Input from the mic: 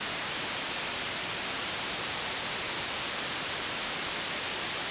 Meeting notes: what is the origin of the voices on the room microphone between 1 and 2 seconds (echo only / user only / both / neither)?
neither